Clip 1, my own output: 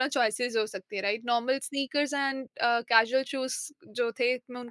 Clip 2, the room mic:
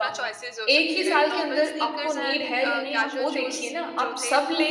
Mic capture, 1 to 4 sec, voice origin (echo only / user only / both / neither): both